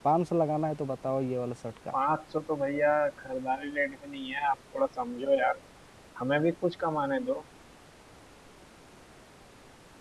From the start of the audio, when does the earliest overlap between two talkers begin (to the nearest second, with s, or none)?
none